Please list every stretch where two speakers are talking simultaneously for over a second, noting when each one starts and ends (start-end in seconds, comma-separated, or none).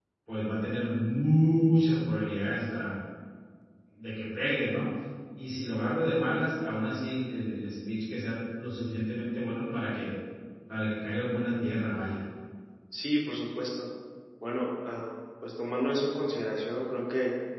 none